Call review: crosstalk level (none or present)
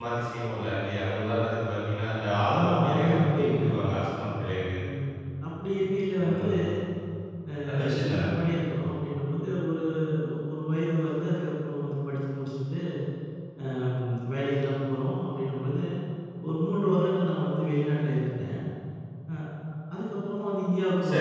present